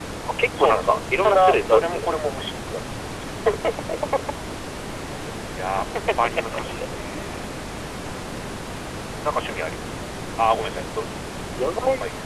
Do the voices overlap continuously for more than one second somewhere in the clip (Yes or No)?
Yes